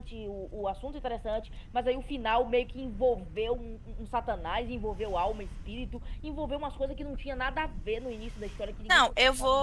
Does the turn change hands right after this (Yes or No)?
Yes